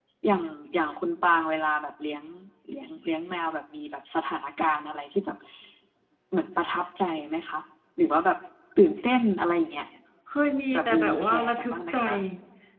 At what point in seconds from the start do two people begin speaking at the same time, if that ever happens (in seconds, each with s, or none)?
10.7 s